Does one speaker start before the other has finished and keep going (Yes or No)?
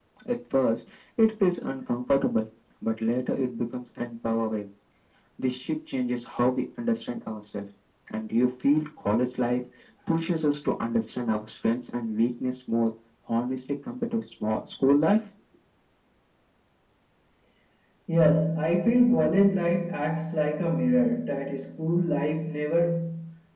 No